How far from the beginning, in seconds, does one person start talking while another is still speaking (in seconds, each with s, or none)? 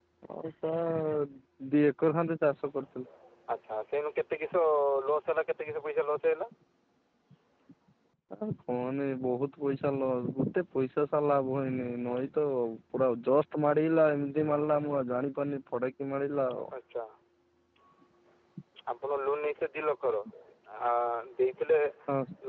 none